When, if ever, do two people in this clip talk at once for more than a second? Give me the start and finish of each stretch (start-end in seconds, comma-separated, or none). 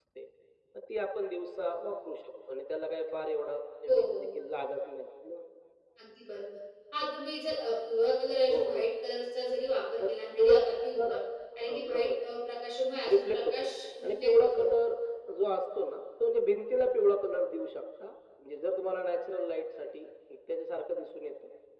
13.1-14.7